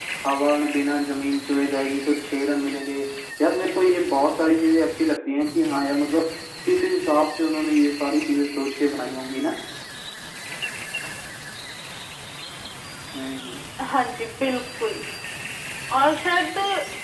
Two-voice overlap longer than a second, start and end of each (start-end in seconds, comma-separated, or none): none